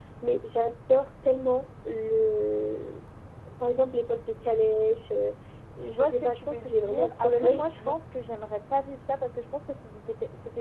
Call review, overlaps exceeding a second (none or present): present